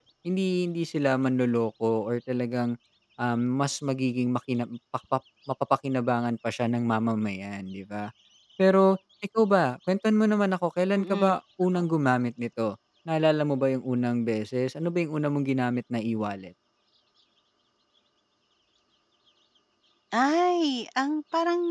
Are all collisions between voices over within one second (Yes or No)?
Yes